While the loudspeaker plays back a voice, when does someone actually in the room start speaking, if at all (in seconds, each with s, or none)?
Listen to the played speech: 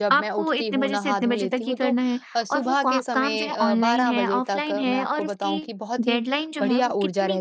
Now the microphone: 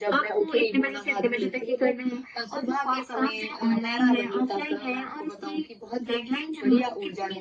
none